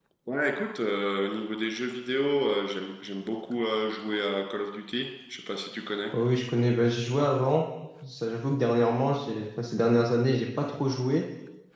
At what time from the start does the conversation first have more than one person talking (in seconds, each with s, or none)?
none